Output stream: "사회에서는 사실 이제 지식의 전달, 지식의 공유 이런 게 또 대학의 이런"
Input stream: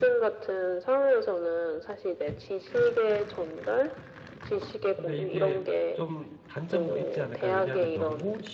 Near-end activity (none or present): present